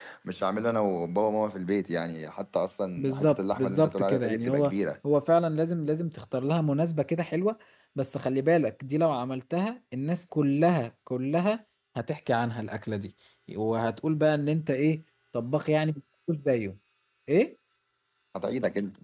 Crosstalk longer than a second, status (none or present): present